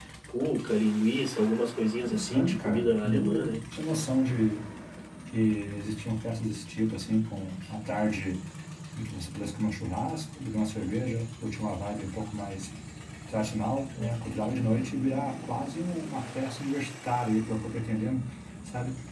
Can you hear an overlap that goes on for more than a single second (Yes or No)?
Yes